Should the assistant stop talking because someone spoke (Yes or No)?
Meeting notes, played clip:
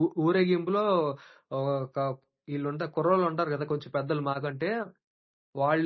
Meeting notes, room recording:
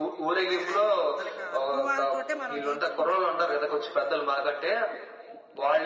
Yes